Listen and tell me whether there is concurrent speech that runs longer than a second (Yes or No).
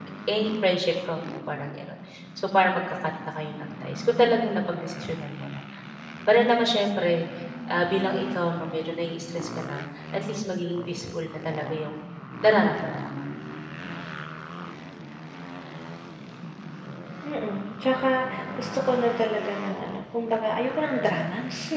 No